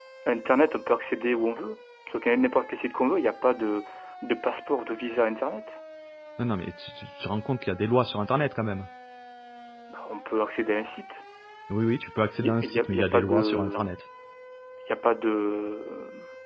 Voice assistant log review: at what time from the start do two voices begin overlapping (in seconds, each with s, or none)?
12.4 s